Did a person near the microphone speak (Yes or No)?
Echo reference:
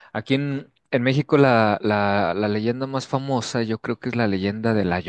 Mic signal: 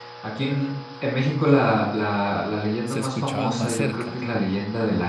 Yes